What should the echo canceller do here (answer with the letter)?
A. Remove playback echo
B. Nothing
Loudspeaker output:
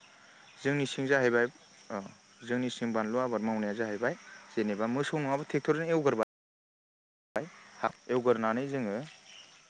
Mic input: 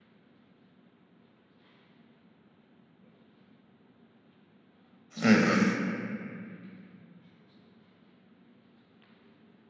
B